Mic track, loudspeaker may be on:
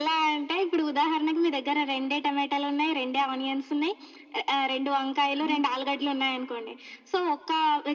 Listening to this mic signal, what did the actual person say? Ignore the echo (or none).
అంతే.